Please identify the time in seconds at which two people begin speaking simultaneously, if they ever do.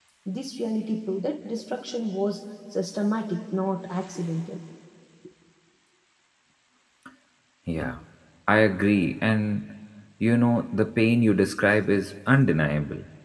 none

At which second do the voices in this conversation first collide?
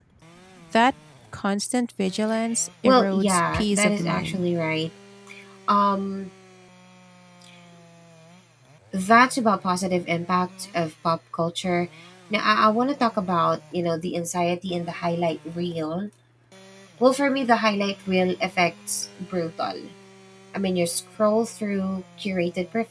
2.8 s

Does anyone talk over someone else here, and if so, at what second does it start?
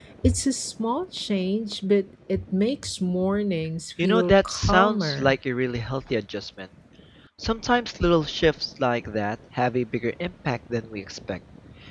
4.0 s

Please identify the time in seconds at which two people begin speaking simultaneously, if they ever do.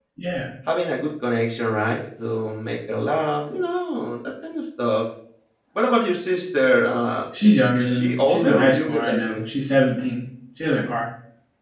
7.7 s

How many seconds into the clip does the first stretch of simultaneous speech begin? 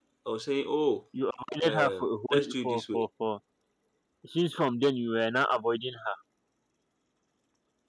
1.6 s

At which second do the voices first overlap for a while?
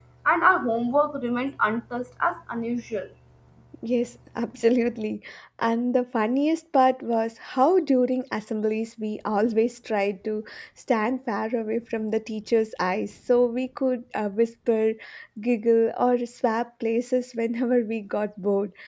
none

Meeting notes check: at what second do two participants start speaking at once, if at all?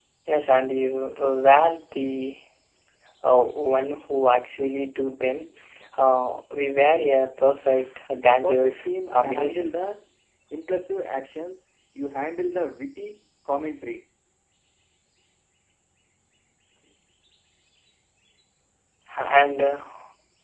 8.3 s

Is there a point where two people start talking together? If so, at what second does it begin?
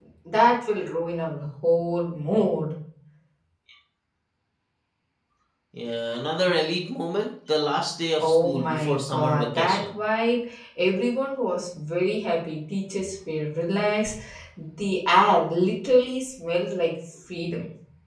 8.2 s

